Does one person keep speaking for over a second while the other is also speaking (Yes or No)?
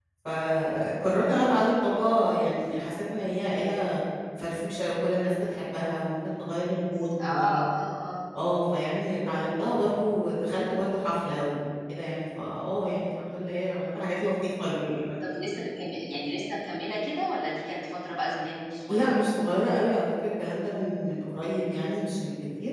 No